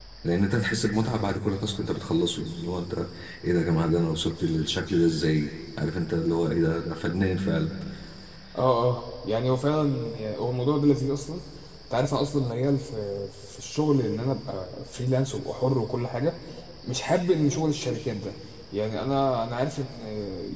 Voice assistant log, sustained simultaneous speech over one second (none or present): none